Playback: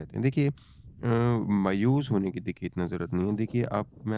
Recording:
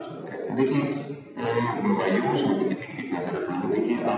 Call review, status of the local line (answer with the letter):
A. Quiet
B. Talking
A